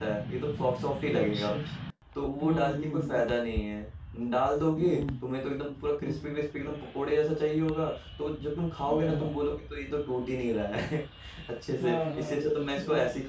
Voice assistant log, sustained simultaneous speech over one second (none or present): present